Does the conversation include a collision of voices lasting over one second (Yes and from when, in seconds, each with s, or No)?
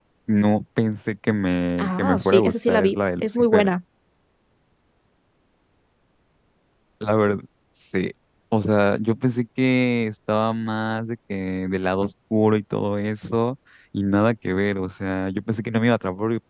Yes, from 1.8 s